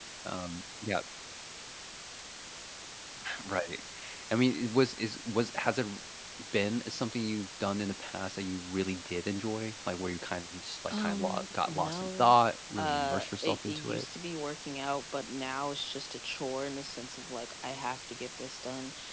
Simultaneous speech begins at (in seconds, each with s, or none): 10.9 s